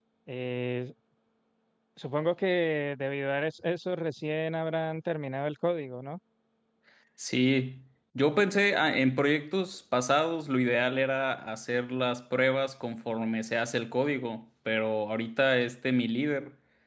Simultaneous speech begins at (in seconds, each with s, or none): none